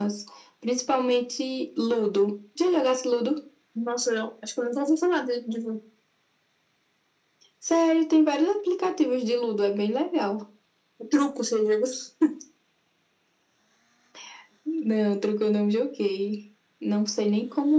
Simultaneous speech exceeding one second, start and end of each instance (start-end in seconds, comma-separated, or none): none